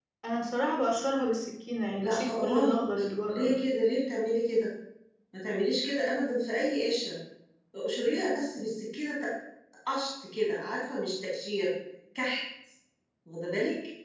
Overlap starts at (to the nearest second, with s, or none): 2 s